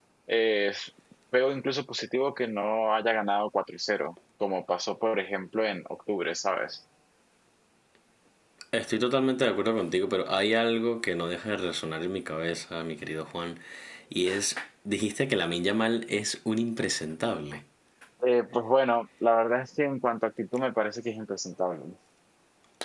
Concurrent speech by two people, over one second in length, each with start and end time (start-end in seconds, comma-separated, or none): none